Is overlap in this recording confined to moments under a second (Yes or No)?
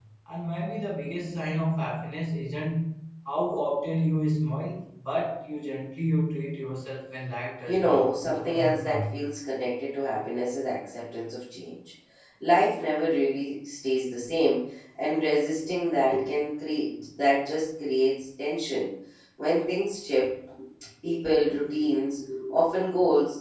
No